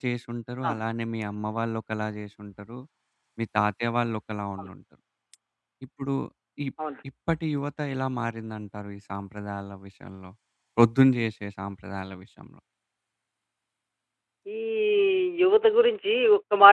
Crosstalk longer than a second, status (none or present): none